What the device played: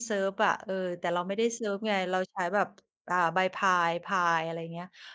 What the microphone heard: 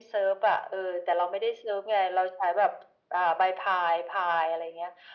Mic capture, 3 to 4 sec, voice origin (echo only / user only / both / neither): echo only